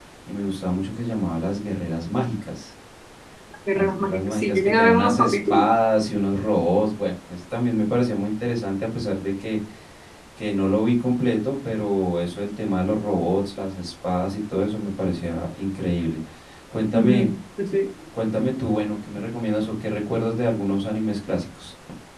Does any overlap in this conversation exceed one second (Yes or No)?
Yes